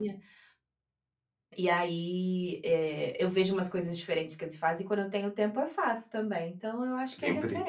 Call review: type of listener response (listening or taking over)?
taking over